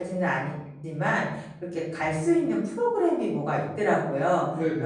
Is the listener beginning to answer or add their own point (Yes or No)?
No